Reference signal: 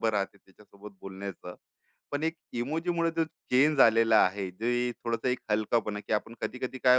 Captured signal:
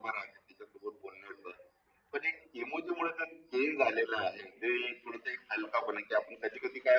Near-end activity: none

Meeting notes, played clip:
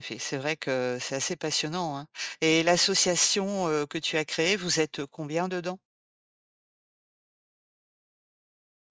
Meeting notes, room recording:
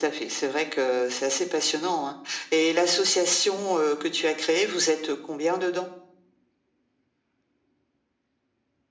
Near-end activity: none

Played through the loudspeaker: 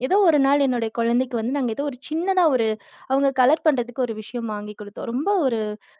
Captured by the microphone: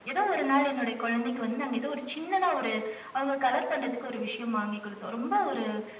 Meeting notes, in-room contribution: none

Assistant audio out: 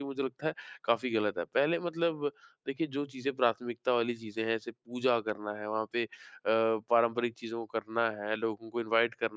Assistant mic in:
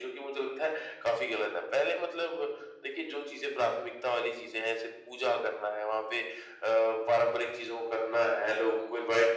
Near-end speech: none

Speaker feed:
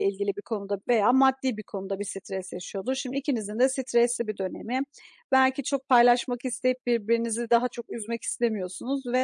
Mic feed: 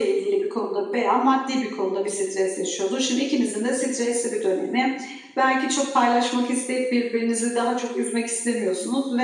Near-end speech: none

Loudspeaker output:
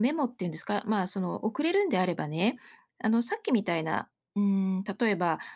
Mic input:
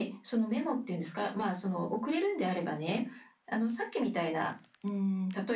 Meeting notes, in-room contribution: none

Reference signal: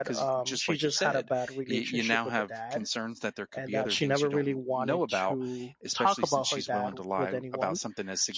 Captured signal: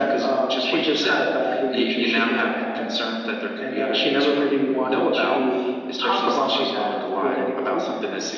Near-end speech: none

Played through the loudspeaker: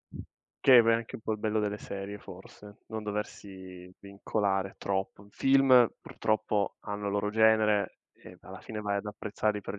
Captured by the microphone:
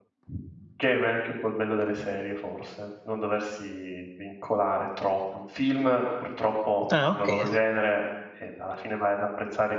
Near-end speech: present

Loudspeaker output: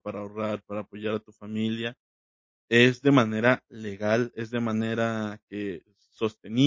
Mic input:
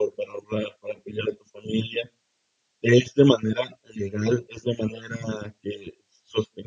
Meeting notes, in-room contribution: none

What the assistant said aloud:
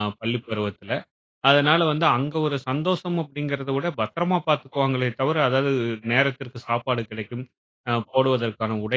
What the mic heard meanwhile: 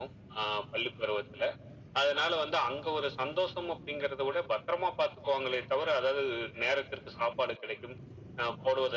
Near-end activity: none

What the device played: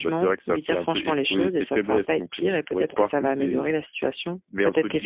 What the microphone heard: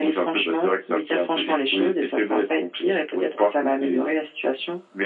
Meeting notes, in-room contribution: none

